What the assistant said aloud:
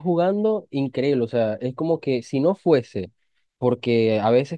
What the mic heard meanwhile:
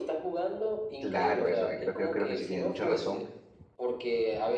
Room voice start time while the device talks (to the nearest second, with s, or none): 1 s